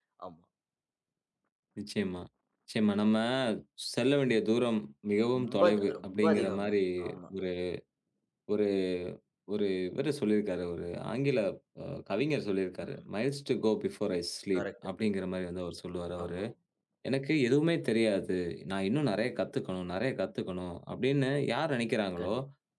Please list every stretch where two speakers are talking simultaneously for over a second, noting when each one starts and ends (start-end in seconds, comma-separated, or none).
5.4-6.7